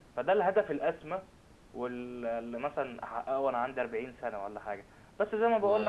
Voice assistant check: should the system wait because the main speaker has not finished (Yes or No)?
Yes